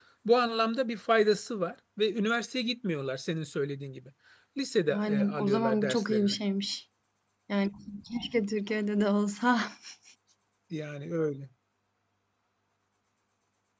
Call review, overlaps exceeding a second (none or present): present